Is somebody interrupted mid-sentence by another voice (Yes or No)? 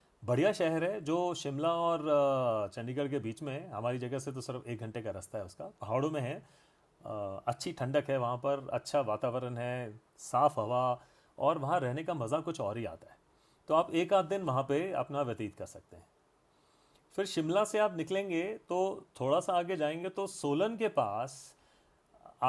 No